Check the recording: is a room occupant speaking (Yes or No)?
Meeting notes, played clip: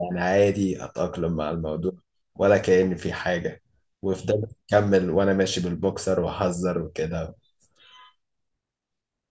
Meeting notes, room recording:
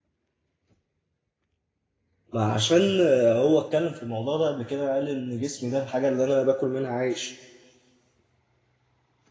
Yes